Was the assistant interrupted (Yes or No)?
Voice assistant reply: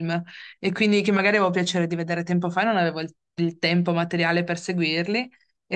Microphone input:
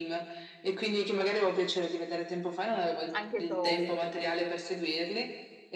Yes